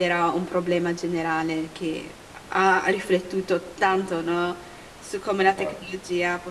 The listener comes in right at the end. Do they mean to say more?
No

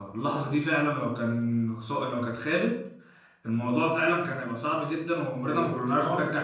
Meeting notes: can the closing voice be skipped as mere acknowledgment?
No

